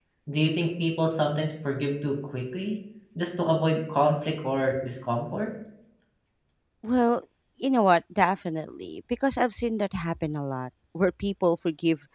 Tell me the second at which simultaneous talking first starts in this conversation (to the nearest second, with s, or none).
none